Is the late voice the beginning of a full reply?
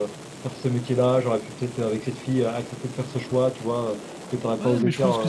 Yes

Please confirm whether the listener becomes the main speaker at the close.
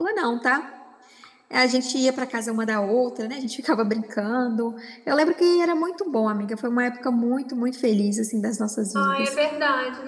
Yes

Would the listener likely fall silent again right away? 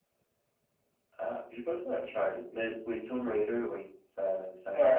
No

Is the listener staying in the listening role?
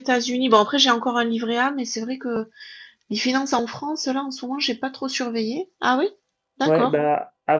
No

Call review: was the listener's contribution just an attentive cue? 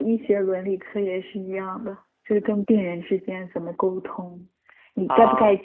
Yes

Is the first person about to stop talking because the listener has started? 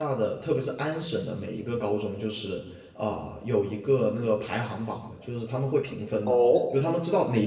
No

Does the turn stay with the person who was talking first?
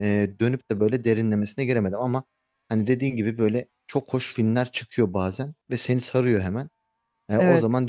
Yes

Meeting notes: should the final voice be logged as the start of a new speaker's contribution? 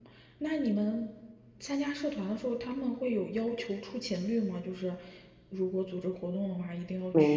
Yes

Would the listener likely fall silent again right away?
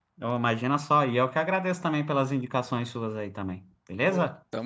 No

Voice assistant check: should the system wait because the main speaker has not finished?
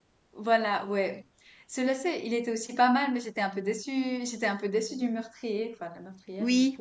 No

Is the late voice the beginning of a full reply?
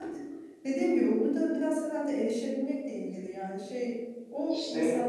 No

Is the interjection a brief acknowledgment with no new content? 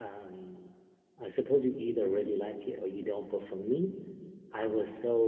Yes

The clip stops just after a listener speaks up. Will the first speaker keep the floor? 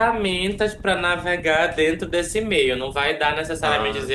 Yes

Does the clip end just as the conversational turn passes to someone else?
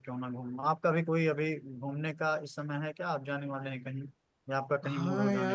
Yes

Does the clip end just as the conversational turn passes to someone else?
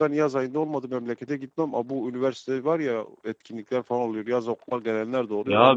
Yes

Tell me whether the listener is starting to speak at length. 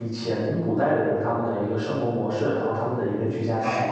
Yes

